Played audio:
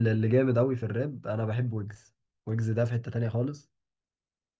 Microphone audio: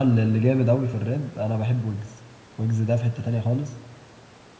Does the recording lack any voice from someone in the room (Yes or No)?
Yes